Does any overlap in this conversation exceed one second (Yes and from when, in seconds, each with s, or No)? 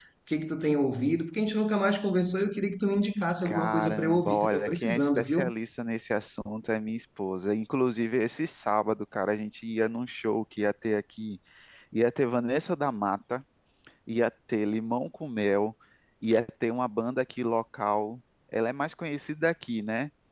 Yes, from 3.4 s